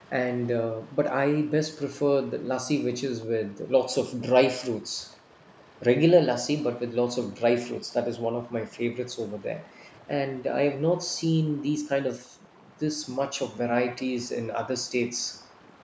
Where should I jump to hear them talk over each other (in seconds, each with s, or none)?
none